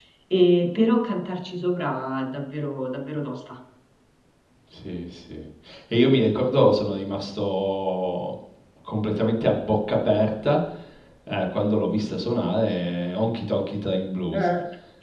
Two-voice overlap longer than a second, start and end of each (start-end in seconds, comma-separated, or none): none